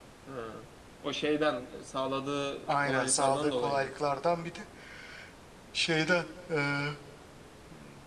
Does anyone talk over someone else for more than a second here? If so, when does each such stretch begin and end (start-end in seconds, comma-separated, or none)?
2.7-3.9